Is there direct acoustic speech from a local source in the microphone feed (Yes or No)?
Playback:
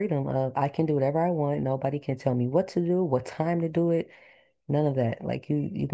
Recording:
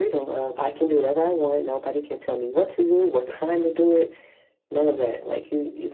No